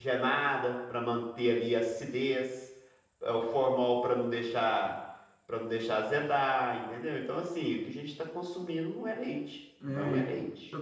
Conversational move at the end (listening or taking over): taking over